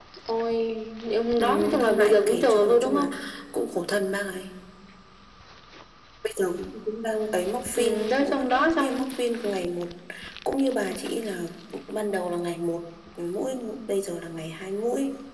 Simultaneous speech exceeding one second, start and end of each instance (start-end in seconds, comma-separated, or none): 1.4-3.1, 7.8-9.0